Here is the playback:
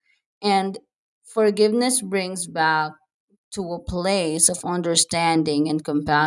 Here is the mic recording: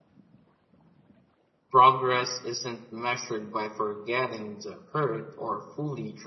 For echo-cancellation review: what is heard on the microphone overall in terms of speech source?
user only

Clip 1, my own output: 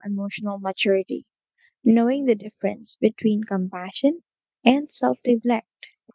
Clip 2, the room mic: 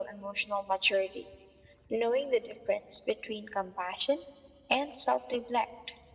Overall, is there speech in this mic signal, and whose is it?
echo only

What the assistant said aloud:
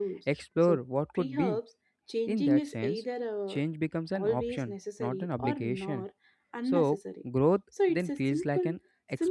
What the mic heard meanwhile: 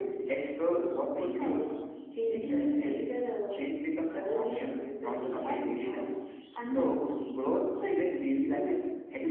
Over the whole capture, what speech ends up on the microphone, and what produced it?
echo only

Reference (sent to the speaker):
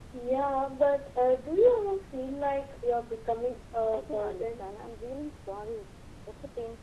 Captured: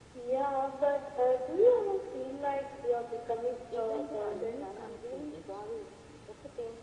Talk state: both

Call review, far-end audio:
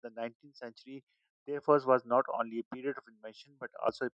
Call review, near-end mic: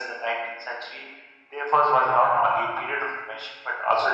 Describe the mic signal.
echo only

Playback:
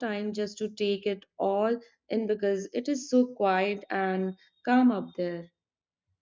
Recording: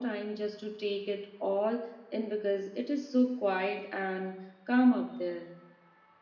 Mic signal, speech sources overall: echo only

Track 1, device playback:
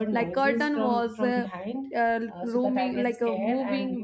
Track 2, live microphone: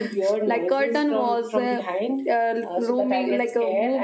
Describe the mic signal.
echo only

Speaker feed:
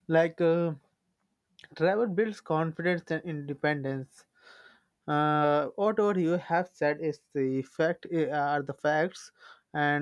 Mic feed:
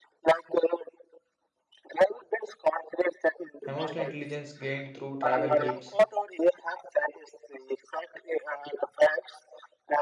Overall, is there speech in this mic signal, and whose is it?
both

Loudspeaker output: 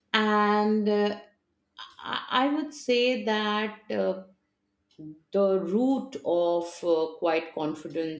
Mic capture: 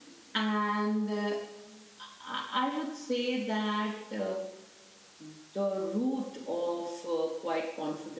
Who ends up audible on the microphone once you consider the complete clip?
echo only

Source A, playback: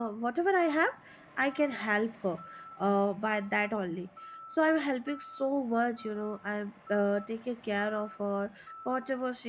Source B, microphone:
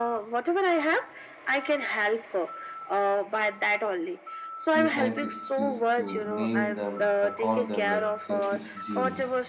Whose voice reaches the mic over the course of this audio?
both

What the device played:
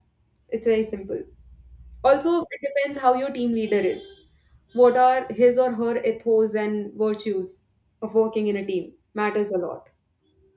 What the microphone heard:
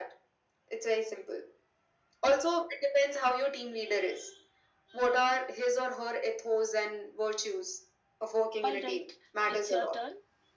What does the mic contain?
both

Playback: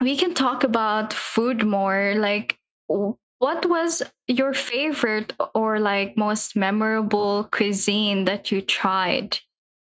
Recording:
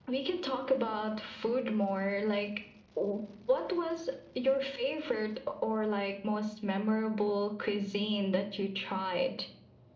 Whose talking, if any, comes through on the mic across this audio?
echo only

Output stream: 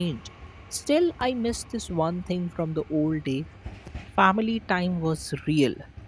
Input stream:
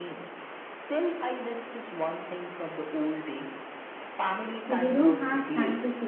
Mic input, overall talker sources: both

